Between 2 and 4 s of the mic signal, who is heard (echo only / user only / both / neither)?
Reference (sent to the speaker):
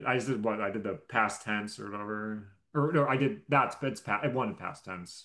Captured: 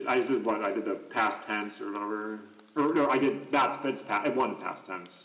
echo only